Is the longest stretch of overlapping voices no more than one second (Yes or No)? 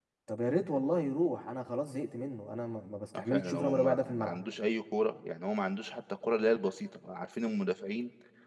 No